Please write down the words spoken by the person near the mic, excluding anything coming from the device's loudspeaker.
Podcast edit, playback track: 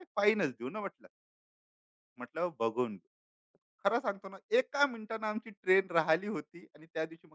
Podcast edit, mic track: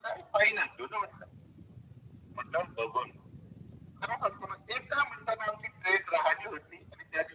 none

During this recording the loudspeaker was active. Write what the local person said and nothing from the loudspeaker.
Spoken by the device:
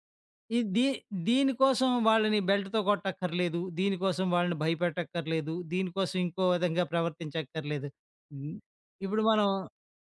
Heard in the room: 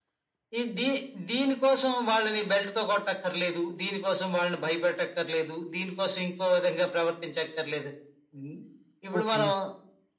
ఓకే అండి.

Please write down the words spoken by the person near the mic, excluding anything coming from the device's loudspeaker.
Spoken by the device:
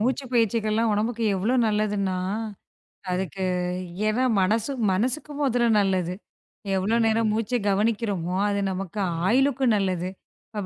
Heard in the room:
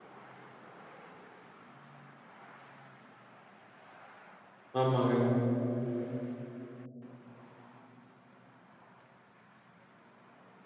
ஆமாங்க.

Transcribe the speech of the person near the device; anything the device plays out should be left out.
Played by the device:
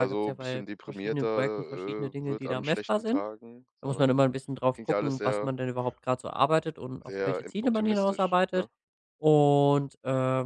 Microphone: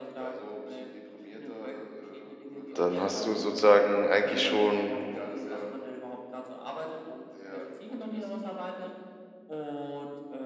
dann hast du sozusagen eigentlich schon

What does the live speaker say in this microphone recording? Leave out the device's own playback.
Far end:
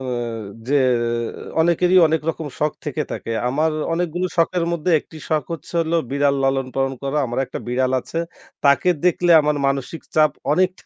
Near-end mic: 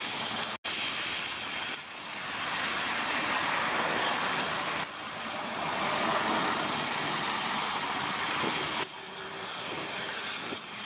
none

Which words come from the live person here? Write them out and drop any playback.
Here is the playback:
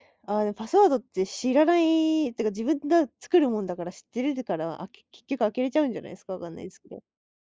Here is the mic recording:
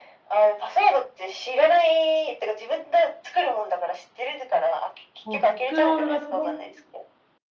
もうスクロールがね

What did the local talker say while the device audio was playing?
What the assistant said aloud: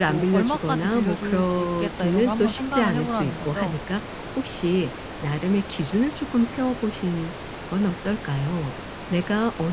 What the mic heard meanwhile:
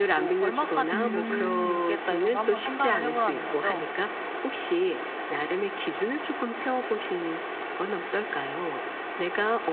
음.

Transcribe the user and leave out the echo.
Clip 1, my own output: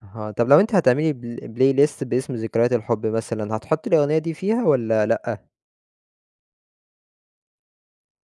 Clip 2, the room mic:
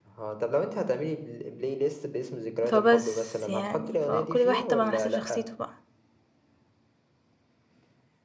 فبس يعني، فكل واحد طبعًا على حسب شخصيته بقى.

